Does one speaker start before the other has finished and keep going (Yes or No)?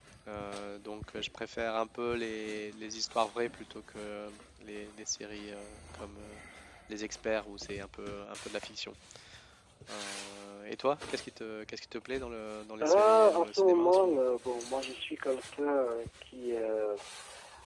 Yes